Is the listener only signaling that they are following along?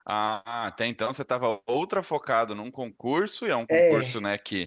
Yes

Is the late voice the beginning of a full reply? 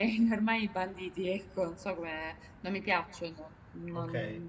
Yes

